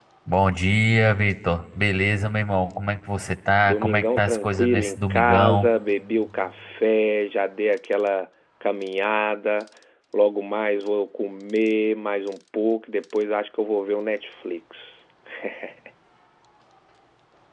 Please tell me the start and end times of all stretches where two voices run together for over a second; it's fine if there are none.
3.6-5.7

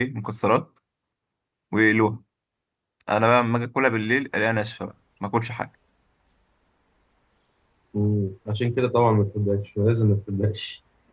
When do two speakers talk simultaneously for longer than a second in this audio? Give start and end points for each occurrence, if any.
none

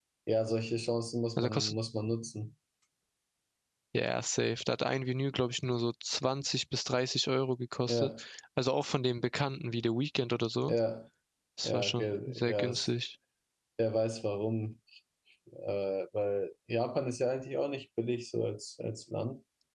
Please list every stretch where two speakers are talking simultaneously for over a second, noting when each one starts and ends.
11.6-12.9

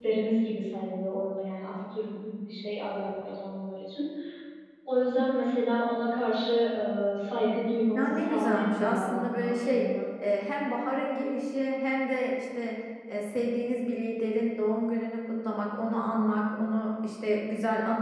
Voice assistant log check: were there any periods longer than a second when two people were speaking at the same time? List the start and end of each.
8.0-9.8

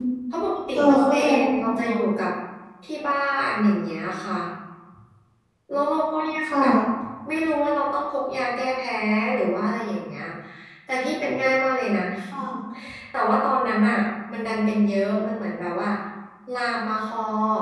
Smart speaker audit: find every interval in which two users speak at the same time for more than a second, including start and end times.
0.8-2.0

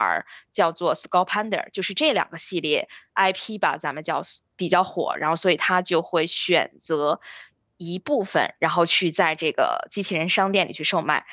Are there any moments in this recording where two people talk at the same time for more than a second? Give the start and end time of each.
none

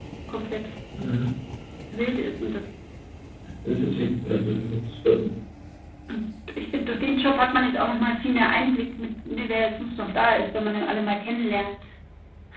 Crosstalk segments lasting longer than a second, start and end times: none

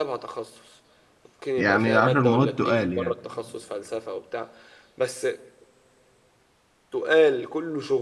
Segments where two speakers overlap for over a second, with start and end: 1.6-3.1

